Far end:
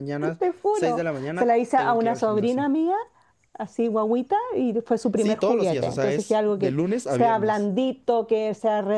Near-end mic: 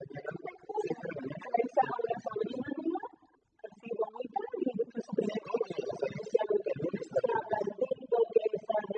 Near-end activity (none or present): none